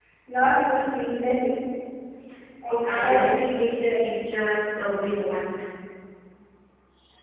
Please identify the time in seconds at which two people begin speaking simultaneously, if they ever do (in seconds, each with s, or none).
2.7 s